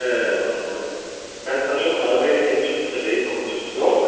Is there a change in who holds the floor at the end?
Yes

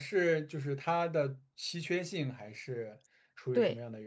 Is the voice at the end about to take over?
Yes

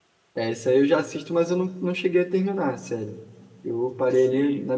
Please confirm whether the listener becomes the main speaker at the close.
Yes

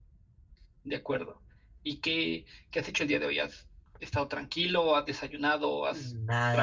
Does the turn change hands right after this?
Yes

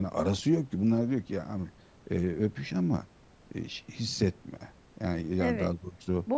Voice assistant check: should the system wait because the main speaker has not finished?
No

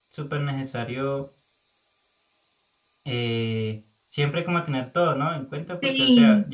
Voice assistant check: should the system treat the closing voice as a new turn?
No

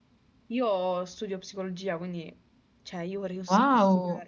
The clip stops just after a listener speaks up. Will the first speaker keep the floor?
Yes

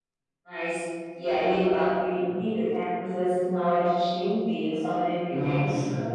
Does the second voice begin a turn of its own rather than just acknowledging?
No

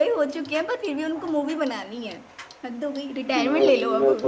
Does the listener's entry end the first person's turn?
Yes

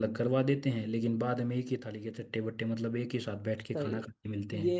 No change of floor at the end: No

